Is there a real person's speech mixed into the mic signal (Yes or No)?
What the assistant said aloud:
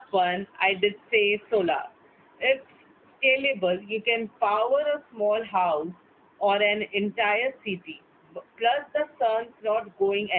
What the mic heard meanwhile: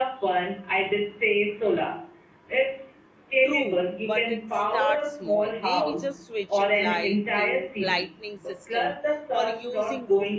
Yes